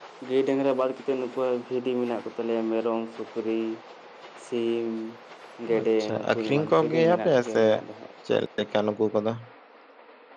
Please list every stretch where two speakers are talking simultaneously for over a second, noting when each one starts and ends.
5.8-7.6

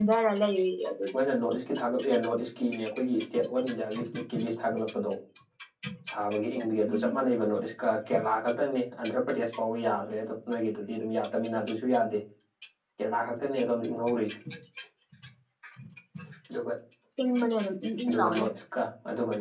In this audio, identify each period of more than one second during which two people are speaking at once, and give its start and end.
none

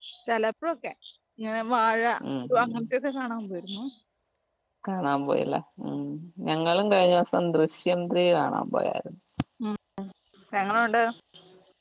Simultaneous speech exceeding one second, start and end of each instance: none

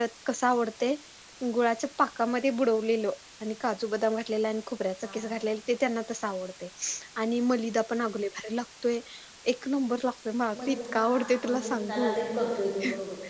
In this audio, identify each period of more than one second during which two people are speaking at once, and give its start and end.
10.7-12.1

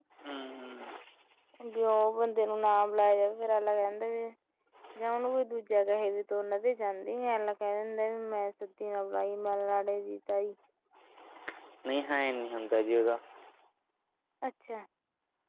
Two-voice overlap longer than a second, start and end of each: none

